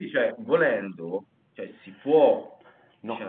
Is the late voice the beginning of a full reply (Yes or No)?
Yes